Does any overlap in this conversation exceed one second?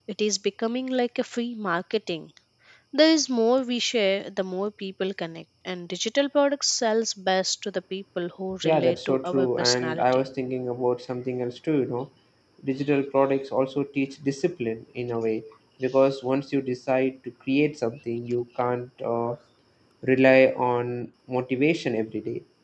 Yes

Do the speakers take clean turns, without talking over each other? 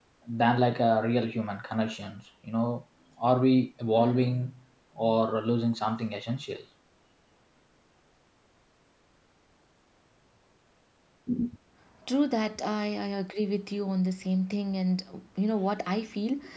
Yes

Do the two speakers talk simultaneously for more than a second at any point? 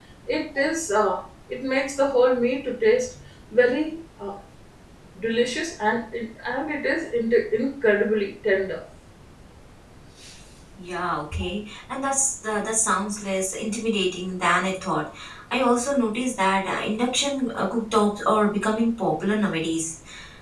No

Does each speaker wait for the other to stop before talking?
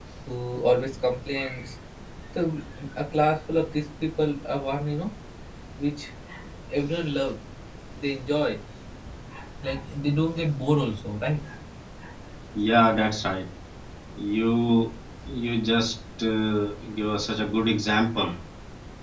Yes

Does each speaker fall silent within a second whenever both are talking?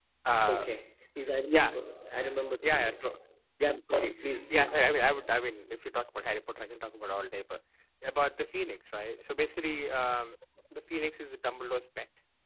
Yes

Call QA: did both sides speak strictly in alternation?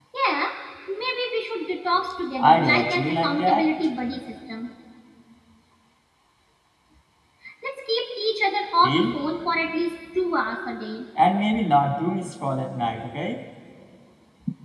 No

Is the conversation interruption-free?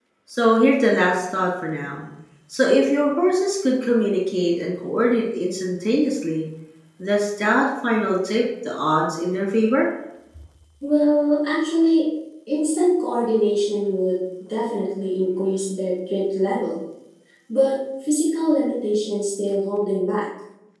Yes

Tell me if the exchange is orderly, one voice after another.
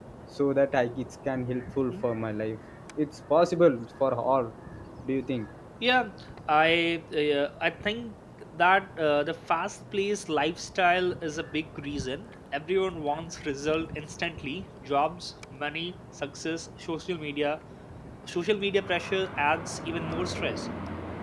Yes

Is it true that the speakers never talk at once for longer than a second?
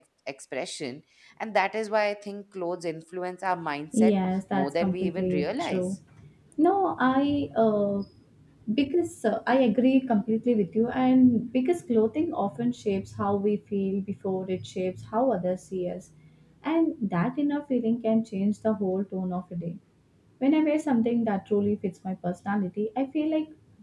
No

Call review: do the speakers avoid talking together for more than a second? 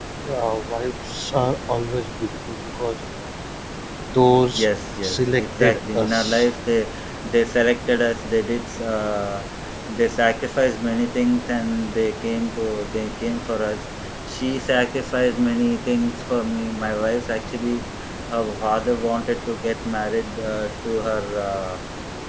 No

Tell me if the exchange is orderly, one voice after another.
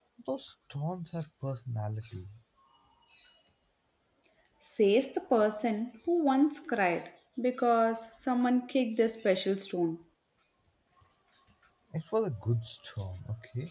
Yes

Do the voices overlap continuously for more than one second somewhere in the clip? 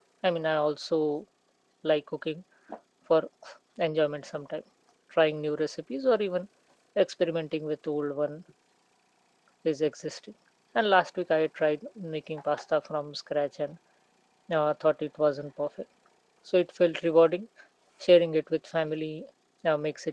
No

